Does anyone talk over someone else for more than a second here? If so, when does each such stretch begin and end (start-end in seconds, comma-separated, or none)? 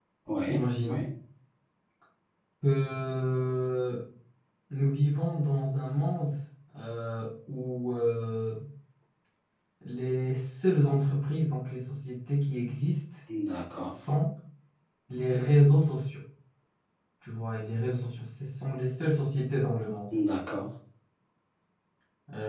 none